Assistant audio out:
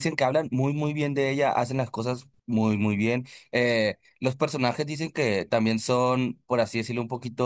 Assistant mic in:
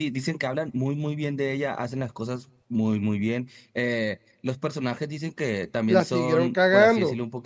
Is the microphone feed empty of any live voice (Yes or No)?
No